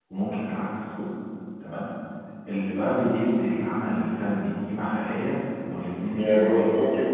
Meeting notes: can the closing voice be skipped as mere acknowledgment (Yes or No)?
No